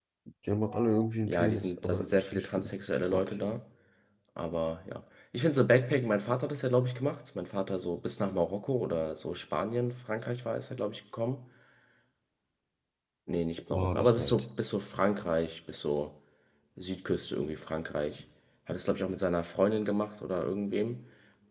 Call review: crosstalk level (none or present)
present